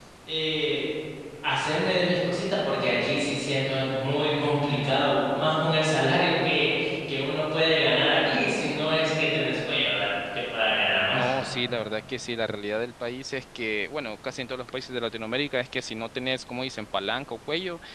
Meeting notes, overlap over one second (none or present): none